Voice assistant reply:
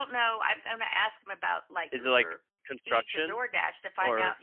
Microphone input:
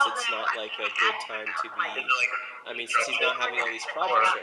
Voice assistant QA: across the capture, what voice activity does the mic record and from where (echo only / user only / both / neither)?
both